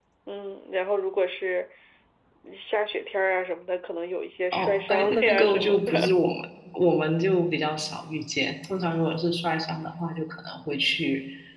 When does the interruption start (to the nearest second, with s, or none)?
5 s